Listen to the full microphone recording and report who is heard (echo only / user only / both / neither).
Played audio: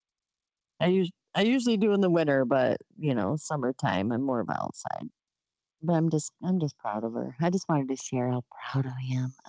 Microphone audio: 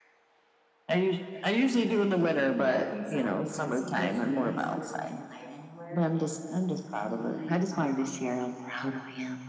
both